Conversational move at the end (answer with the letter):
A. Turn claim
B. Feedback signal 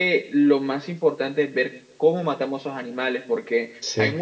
B